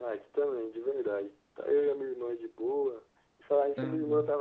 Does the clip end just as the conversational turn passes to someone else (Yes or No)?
No